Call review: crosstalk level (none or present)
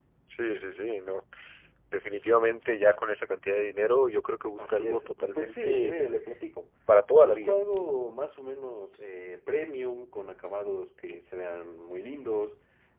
present